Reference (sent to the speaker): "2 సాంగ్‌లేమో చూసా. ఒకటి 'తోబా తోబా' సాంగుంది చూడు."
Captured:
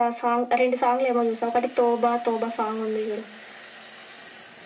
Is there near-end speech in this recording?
No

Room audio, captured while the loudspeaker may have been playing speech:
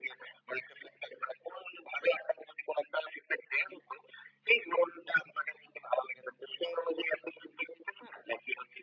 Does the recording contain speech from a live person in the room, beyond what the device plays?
No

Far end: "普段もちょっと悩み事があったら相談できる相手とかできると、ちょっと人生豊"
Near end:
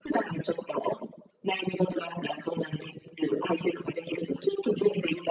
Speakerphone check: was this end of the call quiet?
Yes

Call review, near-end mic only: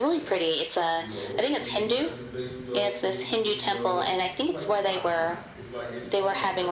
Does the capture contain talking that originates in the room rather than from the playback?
Yes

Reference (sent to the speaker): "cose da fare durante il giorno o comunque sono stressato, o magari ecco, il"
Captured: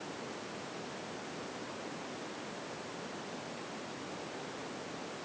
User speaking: No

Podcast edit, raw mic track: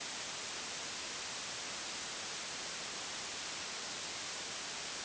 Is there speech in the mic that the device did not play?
No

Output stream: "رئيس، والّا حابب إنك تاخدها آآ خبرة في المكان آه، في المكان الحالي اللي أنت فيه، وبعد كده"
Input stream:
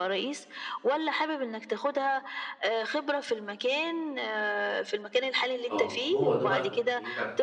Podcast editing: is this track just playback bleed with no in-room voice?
No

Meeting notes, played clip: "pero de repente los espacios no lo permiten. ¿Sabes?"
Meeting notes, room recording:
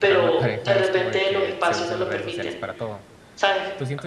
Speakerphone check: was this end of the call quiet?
No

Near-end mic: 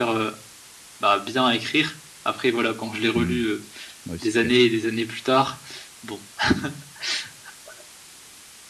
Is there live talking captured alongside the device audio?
Yes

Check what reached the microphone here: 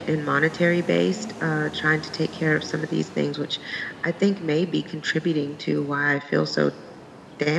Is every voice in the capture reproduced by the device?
Yes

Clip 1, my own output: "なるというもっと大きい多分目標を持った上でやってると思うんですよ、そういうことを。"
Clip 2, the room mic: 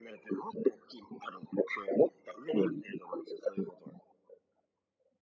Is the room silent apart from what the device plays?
Yes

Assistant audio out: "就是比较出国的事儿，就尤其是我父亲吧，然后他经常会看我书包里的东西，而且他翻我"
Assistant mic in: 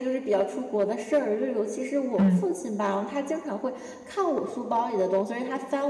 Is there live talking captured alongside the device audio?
Yes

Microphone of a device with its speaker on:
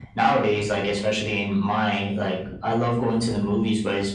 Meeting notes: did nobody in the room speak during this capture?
Yes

